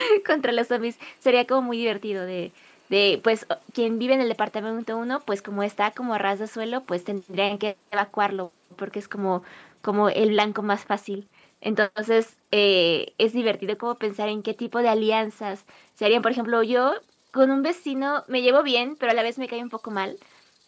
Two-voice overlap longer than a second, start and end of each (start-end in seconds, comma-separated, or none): none